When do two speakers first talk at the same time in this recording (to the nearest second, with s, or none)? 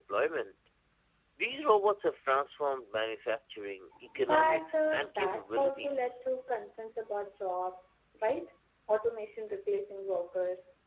4 s